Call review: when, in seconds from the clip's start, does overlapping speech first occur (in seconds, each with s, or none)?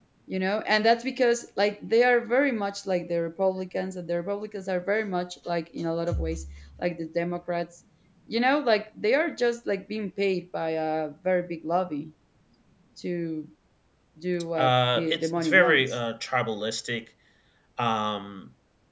14.6 s